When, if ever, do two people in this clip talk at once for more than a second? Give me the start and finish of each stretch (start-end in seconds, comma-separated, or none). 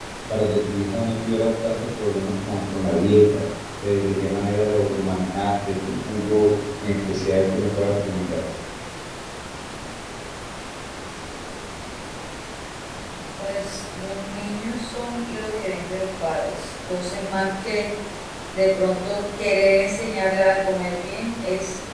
none